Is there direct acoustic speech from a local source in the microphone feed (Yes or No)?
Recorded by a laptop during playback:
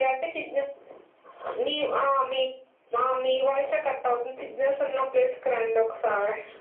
No